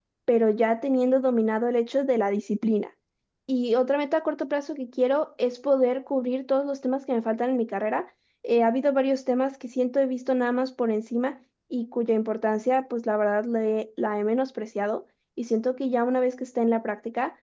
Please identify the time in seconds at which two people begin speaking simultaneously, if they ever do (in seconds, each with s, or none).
none